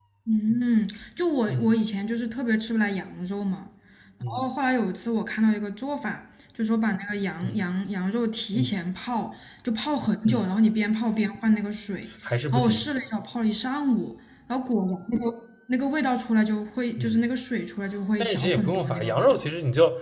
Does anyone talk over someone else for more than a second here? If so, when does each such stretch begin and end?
18.2-19.4

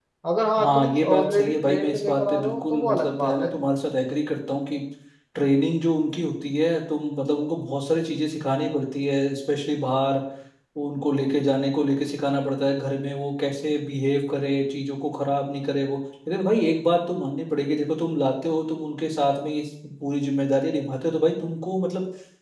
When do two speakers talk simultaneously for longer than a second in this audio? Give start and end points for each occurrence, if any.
0.6-3.5

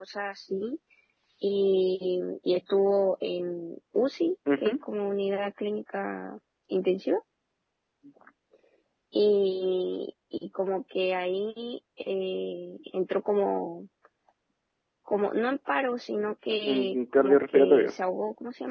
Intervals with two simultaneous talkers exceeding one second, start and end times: 16.5-17.9

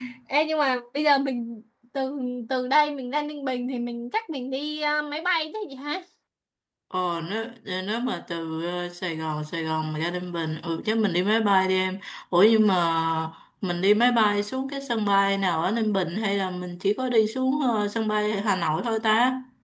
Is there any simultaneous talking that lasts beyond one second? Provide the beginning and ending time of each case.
none

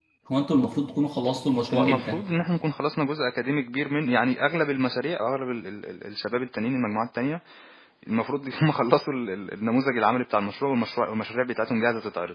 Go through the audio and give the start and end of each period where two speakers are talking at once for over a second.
none

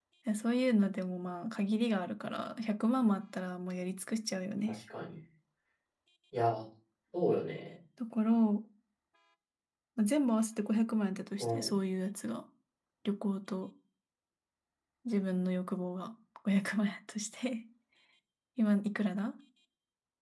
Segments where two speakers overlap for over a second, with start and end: none

